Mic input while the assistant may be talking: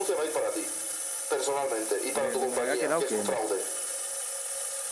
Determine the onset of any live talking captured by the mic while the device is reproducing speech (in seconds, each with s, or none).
2.1 s